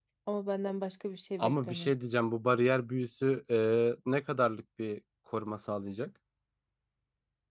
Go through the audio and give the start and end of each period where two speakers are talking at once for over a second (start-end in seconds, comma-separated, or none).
none